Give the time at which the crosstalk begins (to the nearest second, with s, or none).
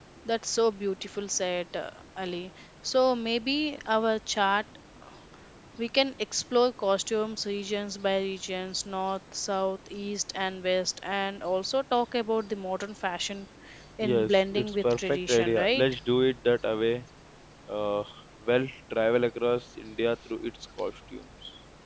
14 s